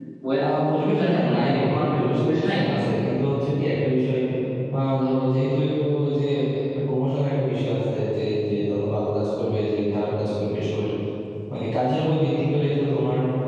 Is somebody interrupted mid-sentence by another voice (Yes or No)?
Yes